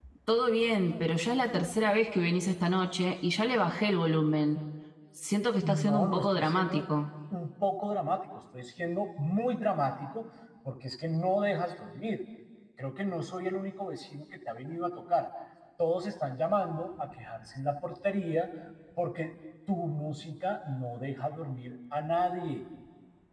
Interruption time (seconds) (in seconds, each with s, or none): 5.6 s